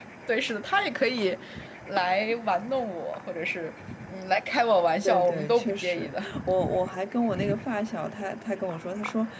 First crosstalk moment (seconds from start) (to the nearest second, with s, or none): 5 s